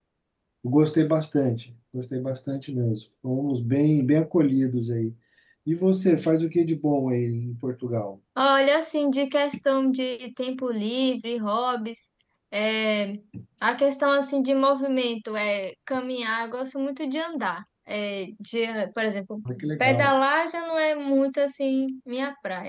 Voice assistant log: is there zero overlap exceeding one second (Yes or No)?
Yes